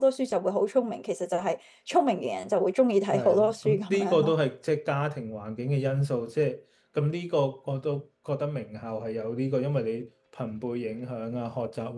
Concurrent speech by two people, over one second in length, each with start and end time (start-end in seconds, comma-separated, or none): 3.1-4.3